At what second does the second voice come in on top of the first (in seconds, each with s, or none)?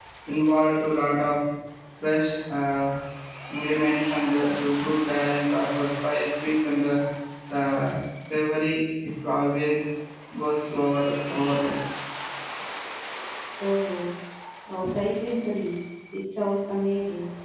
none